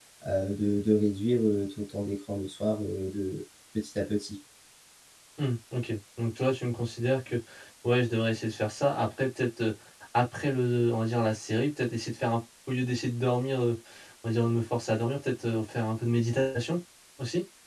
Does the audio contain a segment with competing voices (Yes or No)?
No